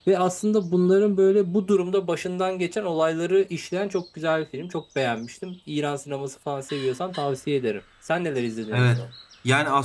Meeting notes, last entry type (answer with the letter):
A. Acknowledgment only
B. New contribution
B